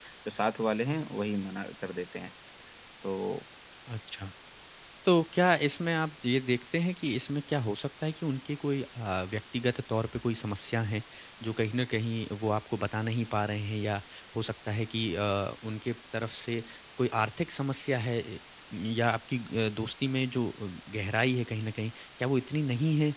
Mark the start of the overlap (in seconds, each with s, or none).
none